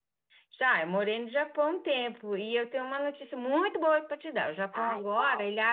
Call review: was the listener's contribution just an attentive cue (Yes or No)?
Yes